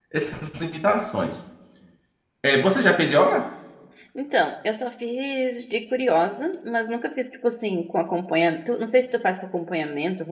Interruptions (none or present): none